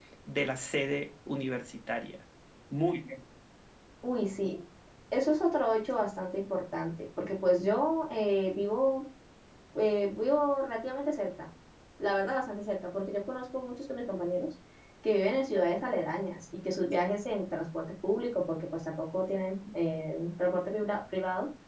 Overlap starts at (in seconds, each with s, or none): none